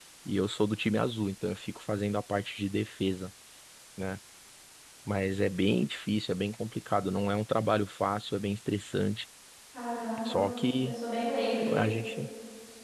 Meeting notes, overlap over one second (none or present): none